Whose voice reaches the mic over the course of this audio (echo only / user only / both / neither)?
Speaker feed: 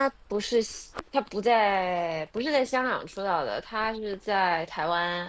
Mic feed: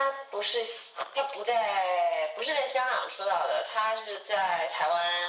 echo only